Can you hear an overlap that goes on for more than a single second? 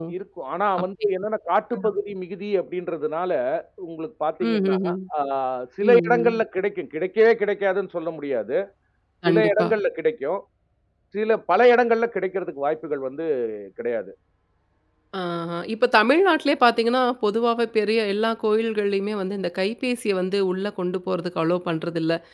No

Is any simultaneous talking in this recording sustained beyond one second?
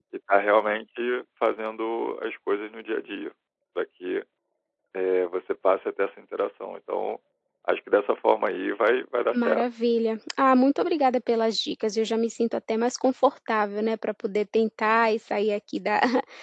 No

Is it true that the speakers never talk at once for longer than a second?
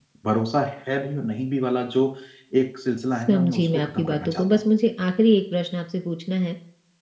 No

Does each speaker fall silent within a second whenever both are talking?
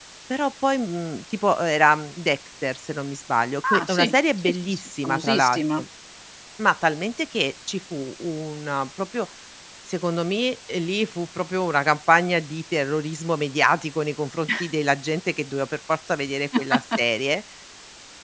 No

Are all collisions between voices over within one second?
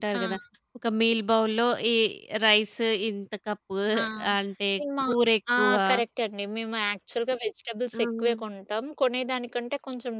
Yes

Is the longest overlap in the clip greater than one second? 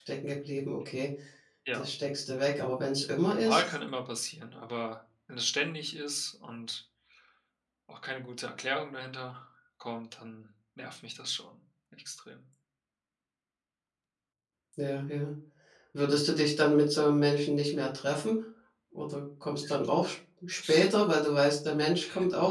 No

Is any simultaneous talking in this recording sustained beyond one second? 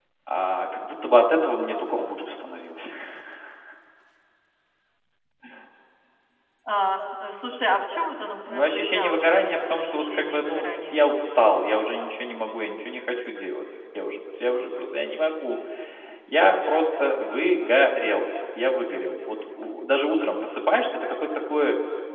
Yes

